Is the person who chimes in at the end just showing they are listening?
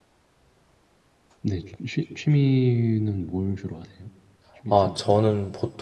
No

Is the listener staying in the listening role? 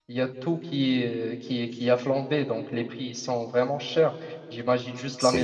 Yes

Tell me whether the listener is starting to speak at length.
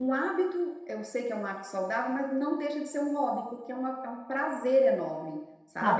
Yes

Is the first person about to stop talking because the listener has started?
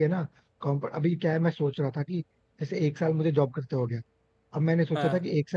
No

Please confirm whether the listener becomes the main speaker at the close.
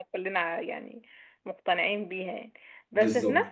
No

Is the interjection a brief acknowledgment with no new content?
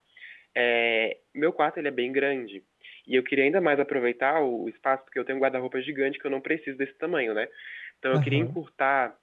Yes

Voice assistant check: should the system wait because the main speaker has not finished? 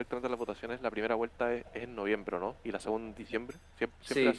No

